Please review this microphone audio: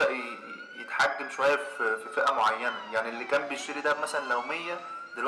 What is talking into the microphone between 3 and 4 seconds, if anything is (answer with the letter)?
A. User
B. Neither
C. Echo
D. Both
C